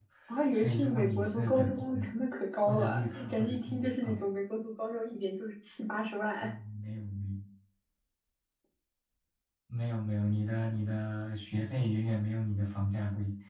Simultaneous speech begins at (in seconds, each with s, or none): 0.5 s